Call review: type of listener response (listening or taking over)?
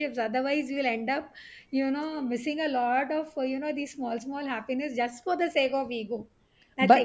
listening